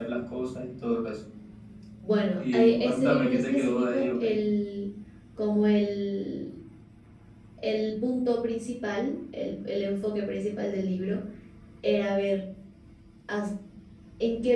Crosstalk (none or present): present